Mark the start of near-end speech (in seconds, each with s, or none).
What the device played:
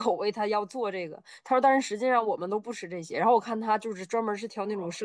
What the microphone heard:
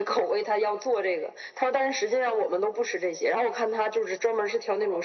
none